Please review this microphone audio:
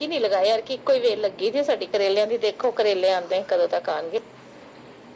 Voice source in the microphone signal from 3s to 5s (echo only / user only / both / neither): echo only